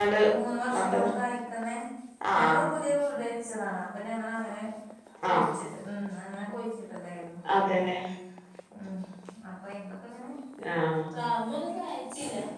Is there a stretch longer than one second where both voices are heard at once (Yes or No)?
No